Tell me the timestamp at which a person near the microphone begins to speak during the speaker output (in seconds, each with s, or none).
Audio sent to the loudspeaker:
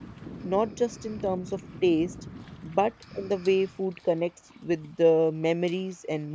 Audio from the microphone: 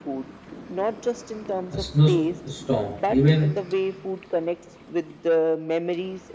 1.7 s